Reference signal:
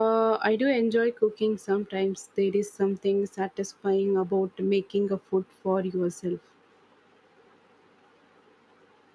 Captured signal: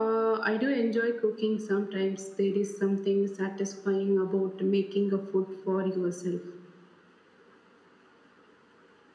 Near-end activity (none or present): none